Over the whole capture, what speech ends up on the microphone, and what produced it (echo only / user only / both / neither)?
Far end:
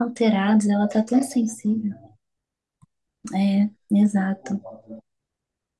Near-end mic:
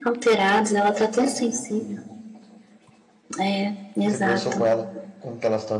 both